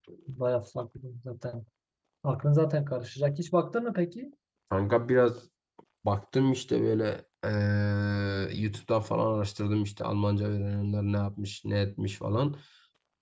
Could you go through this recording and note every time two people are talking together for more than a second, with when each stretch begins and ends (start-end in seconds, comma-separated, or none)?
none